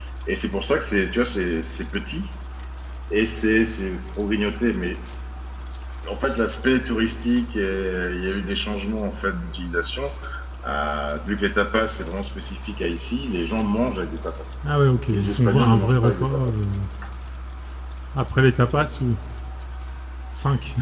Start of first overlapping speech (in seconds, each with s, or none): 15.1 s